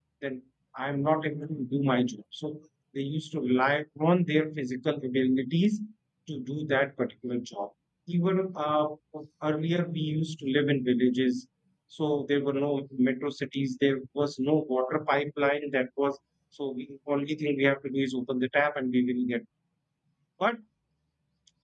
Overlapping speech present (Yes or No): No